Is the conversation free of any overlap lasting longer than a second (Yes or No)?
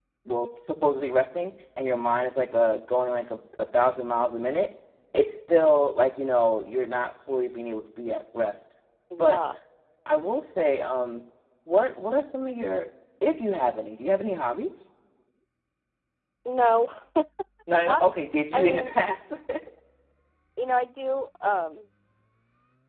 Yes